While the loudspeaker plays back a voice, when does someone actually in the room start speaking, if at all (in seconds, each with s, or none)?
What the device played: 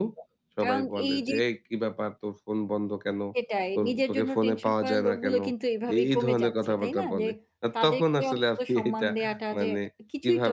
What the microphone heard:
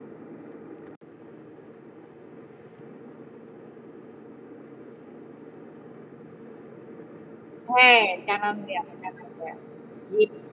7.7 s